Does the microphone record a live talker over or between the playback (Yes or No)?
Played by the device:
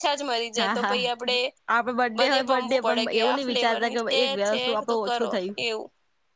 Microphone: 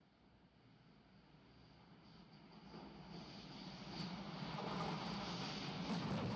No